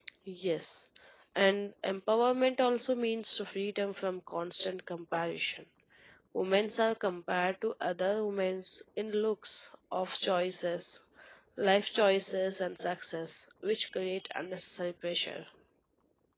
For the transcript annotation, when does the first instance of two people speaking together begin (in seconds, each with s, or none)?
none